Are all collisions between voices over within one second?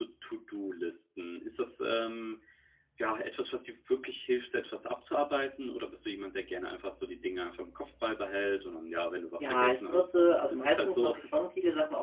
No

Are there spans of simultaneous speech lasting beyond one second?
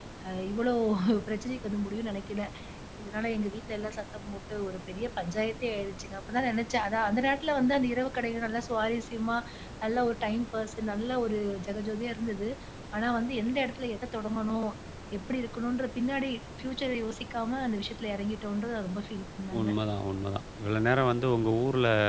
No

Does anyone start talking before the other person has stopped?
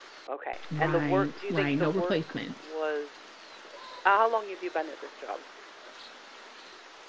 Yes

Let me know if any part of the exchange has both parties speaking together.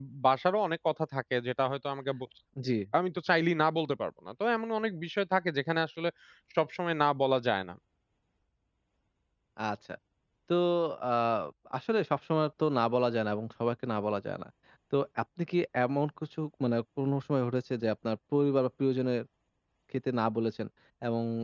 No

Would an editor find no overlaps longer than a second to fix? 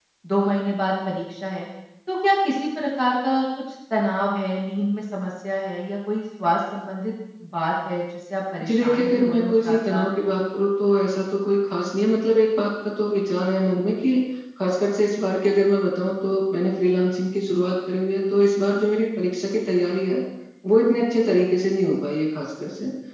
No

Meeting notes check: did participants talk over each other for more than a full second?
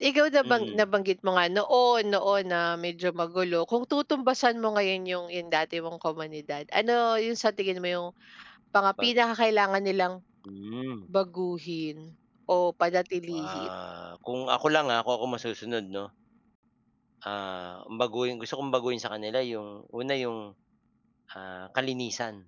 No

